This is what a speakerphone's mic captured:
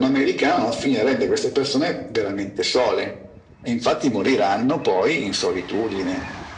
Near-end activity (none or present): none